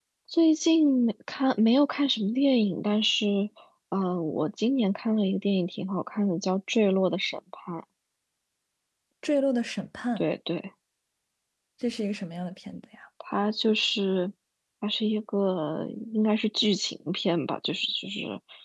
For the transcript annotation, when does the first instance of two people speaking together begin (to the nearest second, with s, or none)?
none